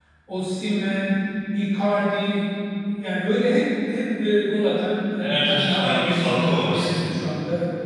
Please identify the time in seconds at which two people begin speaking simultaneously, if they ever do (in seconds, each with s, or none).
5.2 s